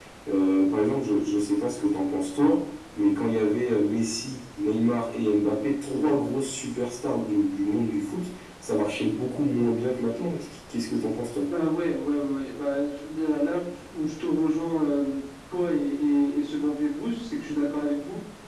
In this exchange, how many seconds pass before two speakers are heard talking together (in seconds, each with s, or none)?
none